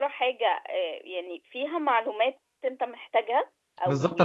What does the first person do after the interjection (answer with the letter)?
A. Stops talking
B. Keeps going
A